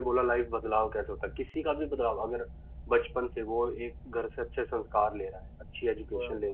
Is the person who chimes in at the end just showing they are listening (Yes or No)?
Yes